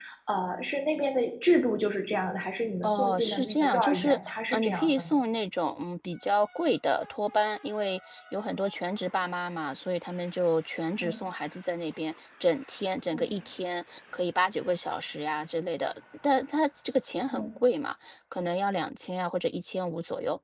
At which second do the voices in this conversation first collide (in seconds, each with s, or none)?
2.8 s